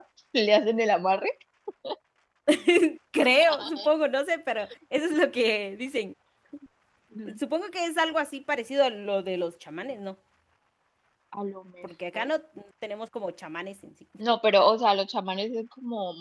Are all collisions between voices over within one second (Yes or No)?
Yes